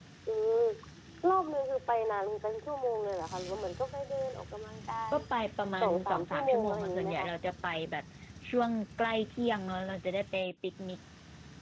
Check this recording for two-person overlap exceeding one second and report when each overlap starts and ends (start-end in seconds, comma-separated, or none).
5.8-7.3